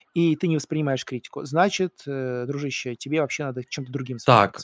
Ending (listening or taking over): taking over